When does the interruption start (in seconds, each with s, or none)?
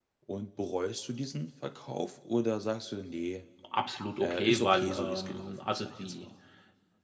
4.2 s